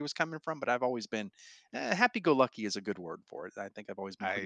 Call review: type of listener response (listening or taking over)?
taking over